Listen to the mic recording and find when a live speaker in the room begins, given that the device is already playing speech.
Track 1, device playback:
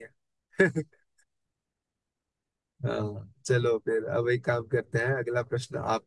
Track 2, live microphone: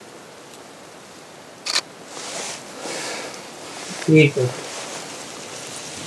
3.9 s

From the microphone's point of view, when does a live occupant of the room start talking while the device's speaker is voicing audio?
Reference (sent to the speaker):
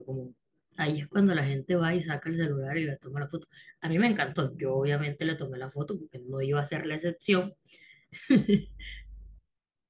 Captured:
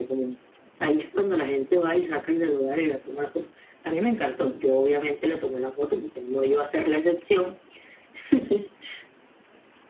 none

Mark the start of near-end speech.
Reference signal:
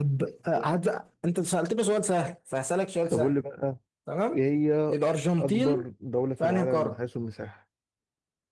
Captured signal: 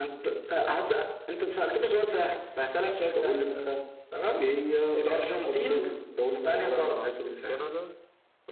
6.7 s

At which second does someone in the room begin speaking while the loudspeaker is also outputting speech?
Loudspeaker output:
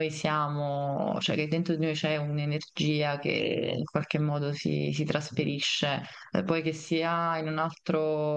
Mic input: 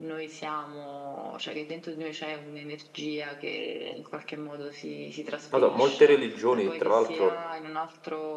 5.5 s

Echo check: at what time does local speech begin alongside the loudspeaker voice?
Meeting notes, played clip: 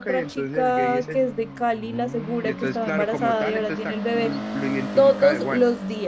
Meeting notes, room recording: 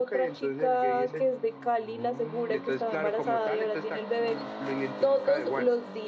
none

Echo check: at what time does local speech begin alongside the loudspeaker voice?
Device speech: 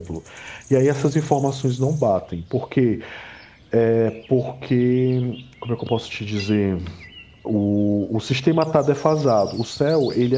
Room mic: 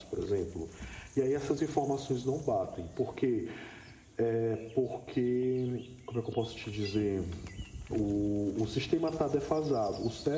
none

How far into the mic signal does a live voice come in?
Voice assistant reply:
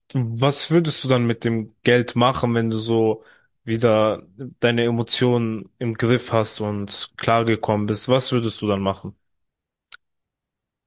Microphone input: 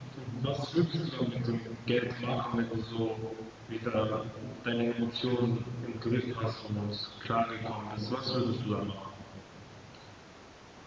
none

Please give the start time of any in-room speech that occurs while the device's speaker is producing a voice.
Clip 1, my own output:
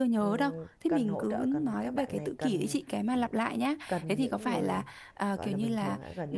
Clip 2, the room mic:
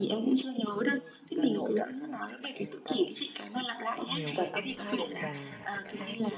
4.0 s

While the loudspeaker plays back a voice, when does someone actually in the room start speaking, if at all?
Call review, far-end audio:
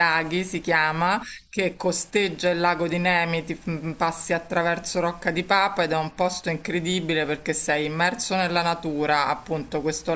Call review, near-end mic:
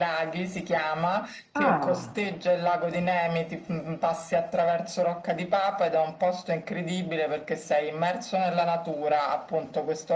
1.5 s

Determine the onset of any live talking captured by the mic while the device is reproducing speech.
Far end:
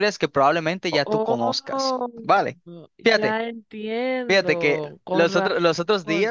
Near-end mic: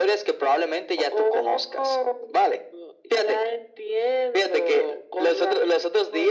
none

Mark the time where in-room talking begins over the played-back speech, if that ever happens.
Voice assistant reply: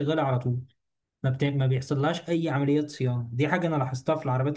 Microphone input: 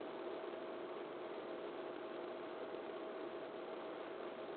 none

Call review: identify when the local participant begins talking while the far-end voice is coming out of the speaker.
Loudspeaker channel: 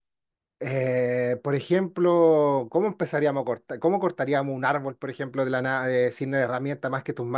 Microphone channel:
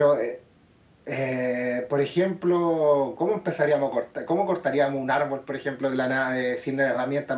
none

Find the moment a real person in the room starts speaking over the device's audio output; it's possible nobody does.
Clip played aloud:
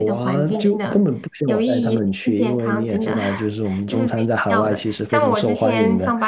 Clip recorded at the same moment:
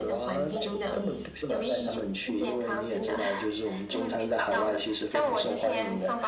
none

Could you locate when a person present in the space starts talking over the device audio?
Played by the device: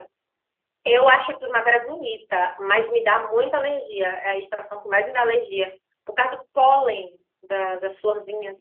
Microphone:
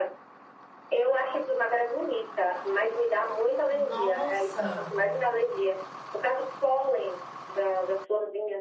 3.7 s

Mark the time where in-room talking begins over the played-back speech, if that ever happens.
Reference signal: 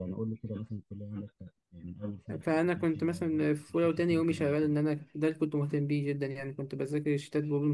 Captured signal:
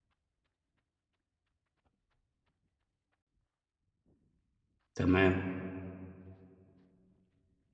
5.0 s

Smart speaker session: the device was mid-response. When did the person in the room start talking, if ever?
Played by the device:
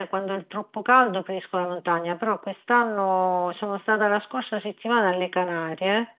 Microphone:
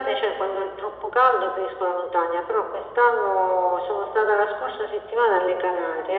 none

